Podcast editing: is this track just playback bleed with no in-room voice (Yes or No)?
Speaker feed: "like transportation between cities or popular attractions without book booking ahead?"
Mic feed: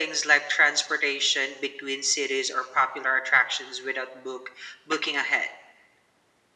Yes